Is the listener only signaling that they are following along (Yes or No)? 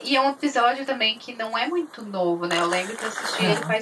Yes